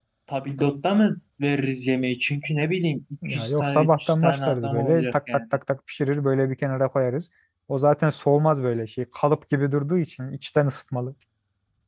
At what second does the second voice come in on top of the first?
3 s

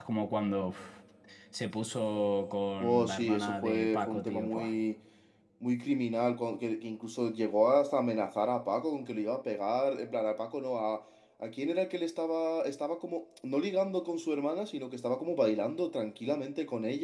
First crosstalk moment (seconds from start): 3 s

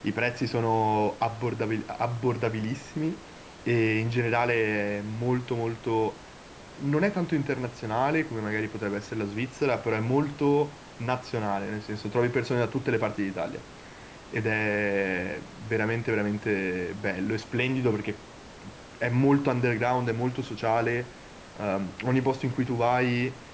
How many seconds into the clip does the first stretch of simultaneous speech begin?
none

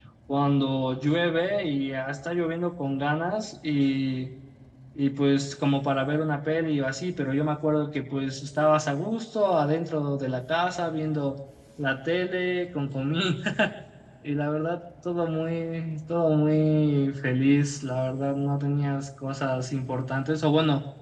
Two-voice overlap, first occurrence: none

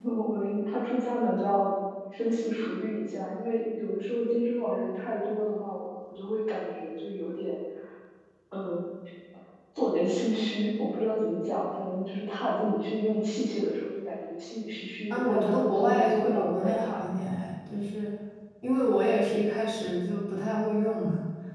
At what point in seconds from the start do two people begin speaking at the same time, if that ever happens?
15 s

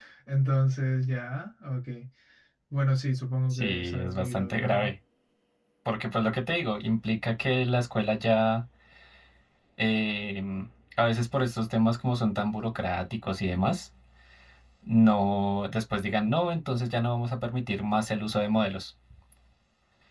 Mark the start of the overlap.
4 s

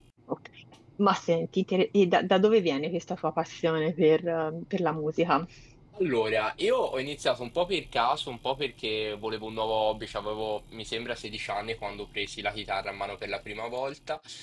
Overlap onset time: none

